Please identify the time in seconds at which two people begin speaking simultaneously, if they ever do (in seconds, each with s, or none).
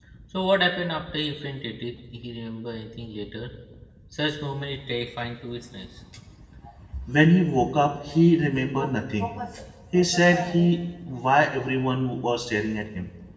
none